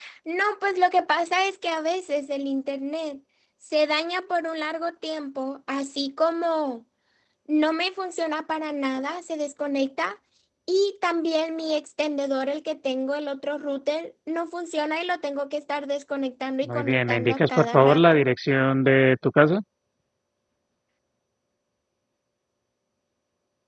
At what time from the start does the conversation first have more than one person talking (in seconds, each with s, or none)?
16.6 s